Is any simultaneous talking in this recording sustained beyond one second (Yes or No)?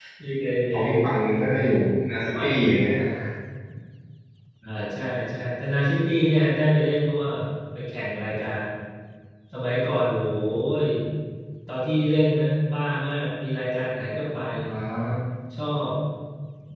No